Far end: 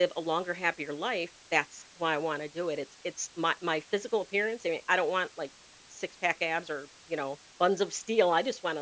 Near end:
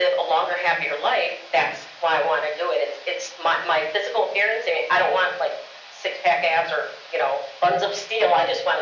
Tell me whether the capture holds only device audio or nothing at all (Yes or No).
Yes